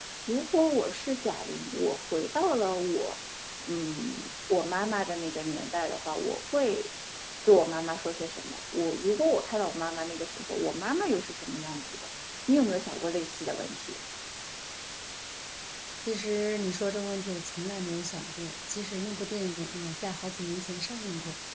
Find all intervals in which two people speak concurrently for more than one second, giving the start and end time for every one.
none

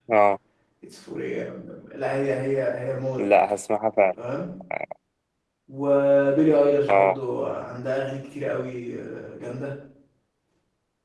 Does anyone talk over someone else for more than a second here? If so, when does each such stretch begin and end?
none

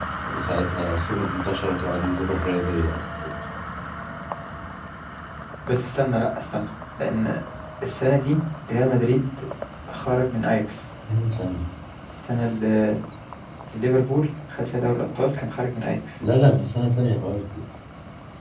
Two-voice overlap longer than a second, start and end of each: none

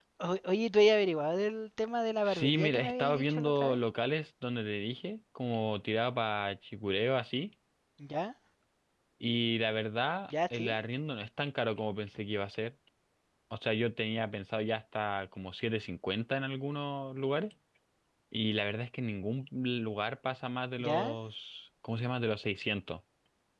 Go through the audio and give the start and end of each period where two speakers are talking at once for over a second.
2.2-3.8

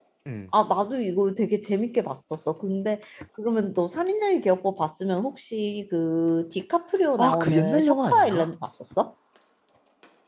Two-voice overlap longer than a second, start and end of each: 7.2-8.5

